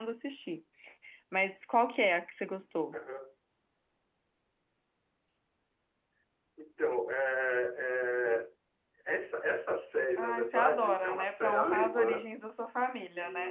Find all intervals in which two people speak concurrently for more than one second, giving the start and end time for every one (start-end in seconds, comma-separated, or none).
10.2-12.2